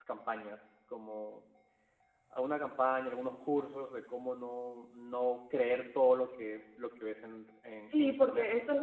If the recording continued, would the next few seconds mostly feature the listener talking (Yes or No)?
Yes